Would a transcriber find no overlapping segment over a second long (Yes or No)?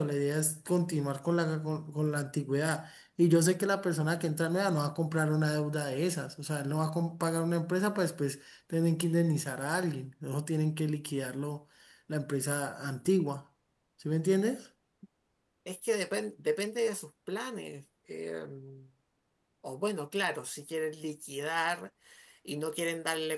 Yes